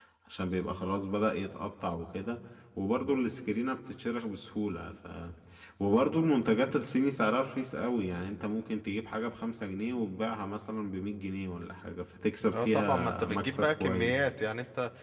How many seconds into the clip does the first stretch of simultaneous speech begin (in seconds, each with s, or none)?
12.5 s